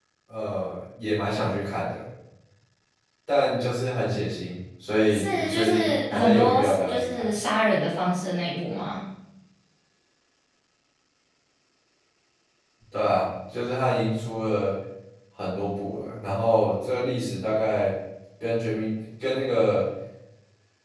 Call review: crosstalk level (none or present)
present